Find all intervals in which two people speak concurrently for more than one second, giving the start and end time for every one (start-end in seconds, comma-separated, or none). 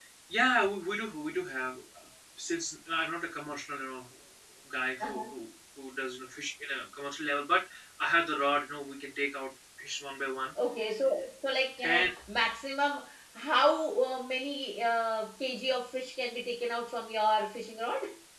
none